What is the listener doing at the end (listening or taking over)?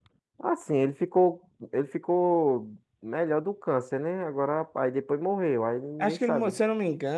taking over